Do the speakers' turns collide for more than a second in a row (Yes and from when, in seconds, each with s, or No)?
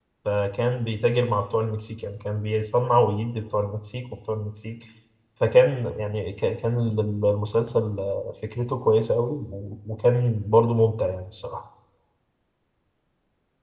No